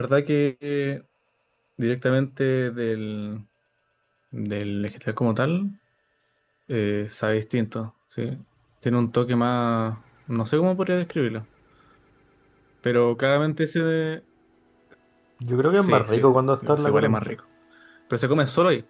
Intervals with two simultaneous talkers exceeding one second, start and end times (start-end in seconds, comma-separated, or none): 15.8-17.2